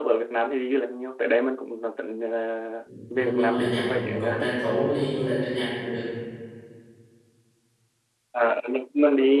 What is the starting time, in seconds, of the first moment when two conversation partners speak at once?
3 s

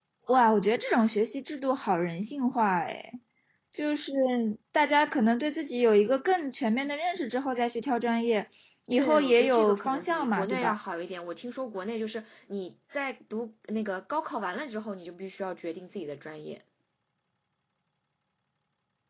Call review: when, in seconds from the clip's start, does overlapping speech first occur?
9 s

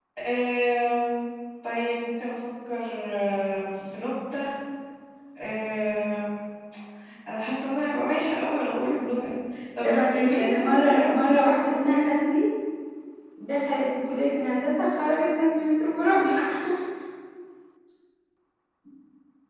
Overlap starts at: 10 s

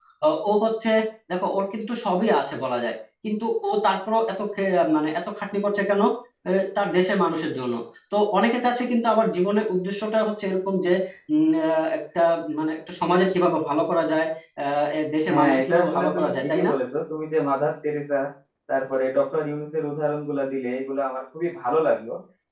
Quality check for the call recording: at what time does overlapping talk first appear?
15 s

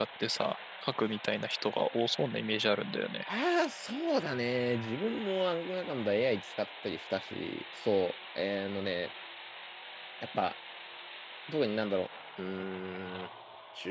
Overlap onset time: none

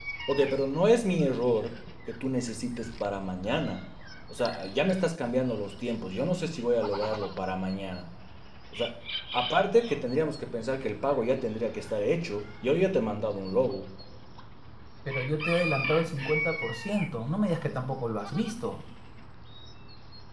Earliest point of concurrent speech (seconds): none

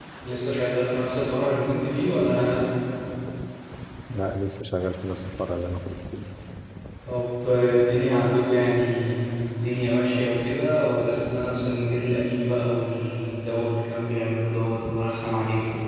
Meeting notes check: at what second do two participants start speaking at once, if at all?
none

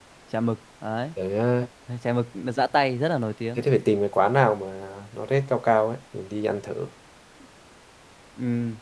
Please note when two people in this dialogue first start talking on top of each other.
none

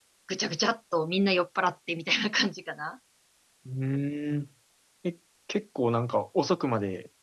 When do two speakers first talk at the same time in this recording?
none

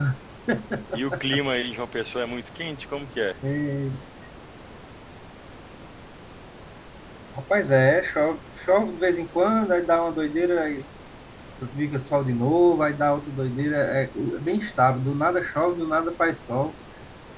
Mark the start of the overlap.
none

